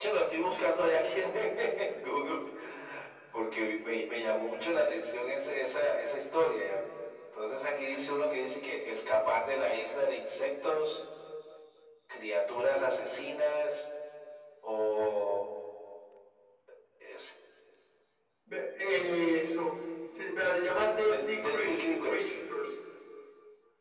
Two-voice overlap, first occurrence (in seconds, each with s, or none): 20.9 s